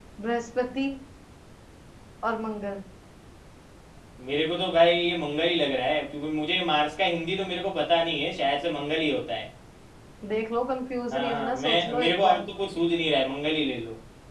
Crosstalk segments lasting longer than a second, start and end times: 11.1-12.4

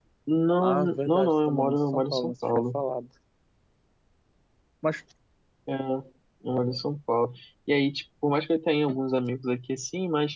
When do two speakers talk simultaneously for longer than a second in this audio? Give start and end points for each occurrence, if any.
0.6-2.8

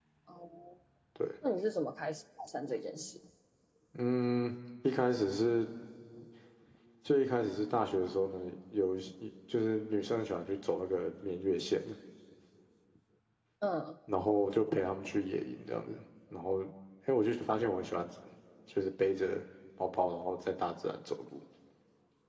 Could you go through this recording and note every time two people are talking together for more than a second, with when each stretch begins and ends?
none

